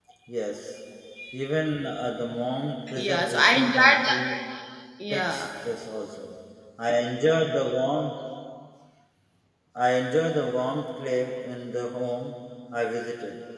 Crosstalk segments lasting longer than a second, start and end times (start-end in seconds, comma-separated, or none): 3.0-4.2